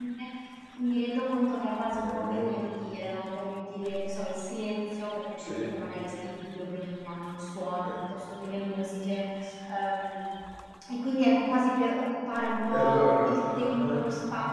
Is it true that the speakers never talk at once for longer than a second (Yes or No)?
No